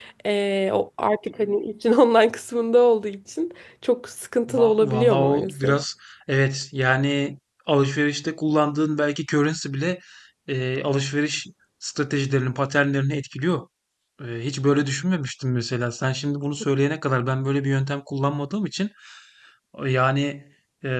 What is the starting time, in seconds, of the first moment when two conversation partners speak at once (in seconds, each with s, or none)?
4.5 s